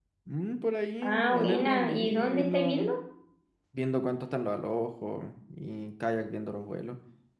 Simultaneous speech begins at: 1.0 s

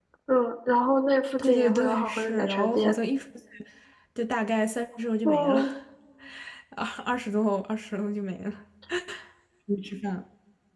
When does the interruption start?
1.4 s

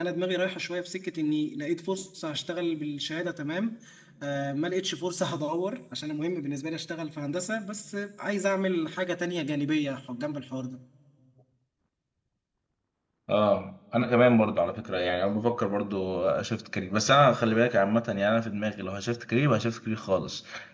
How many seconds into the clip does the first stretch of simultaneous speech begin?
none

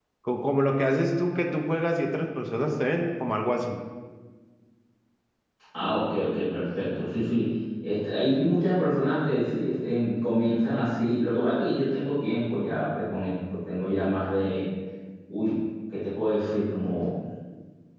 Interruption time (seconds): none

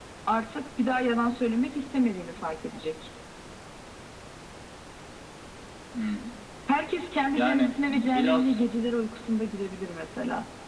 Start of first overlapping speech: 7.3 s

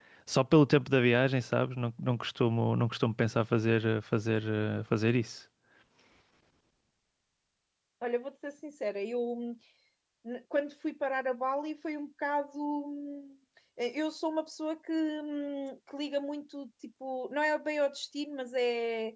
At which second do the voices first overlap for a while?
none

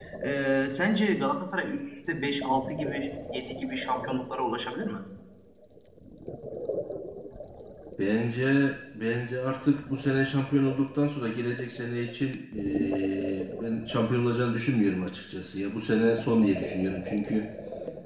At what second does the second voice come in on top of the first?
none

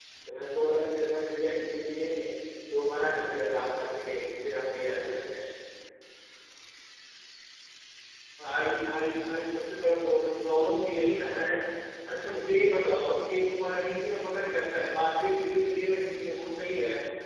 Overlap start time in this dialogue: none

